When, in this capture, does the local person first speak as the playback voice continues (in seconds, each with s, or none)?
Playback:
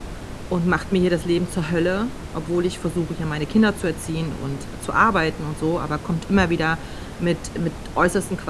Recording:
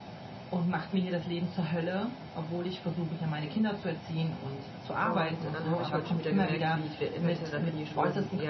5.0 s